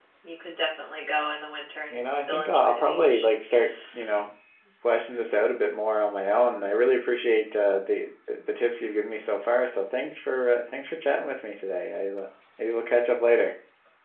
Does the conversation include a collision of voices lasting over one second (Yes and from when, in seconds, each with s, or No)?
Yes, from 1.9 s